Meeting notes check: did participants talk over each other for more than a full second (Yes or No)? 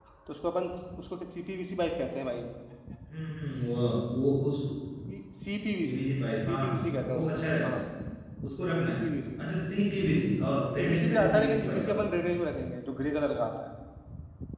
Yes